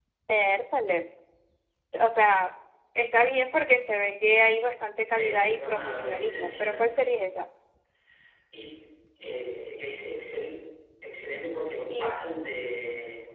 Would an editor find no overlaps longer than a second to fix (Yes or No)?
No